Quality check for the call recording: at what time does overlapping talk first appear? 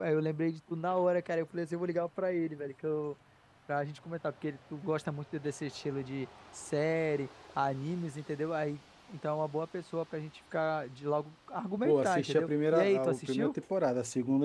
11.8 s

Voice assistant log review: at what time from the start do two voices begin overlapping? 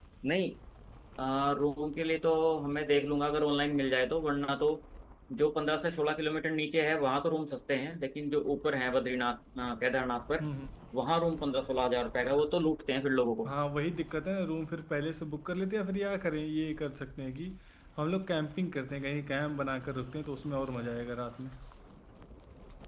none

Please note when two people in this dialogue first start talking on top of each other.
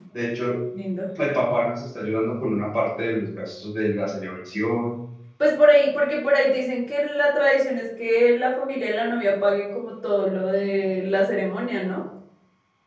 none

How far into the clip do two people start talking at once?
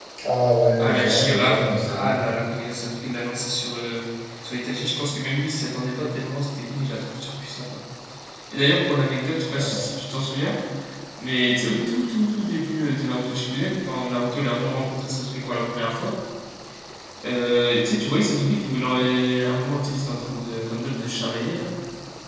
0.8 s

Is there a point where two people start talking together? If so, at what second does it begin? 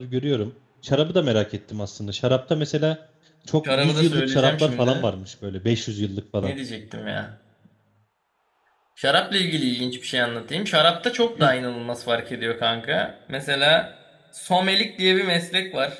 3.7 s

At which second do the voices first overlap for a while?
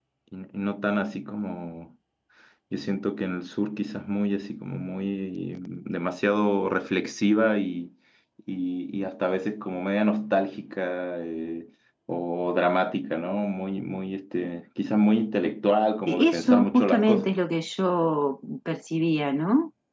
16.1 s

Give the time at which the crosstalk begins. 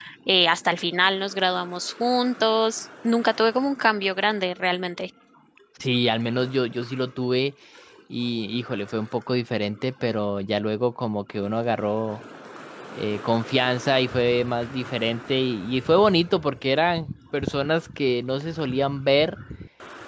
none

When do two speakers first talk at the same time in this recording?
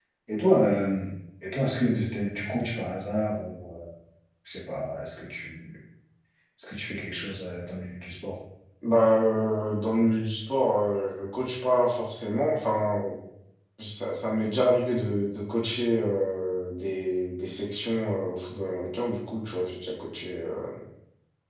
none

